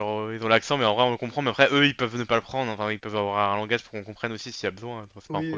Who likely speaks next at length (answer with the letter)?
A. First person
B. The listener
B